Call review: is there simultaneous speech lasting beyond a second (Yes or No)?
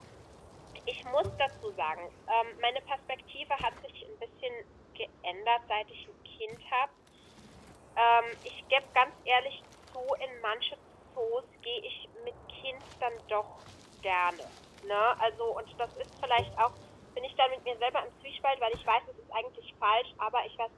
No